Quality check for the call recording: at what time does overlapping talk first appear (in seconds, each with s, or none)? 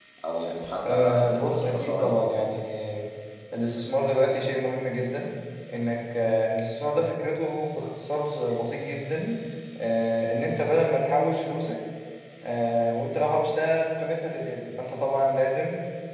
0.9 s